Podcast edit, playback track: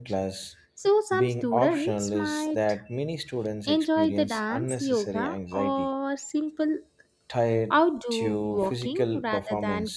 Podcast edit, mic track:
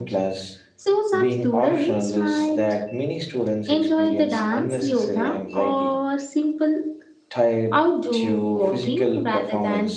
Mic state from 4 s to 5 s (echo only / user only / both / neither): echo only